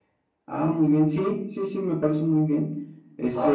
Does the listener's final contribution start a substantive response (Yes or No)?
Yes